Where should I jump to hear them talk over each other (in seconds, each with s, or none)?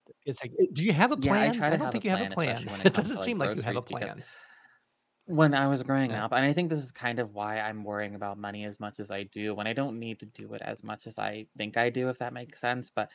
1.2 s